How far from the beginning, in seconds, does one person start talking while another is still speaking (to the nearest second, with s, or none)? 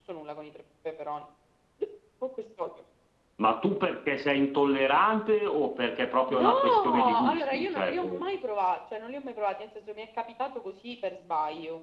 6 s